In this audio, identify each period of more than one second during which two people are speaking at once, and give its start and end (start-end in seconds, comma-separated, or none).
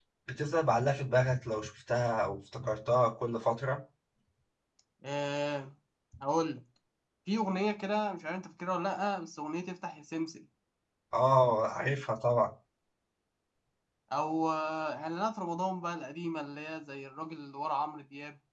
none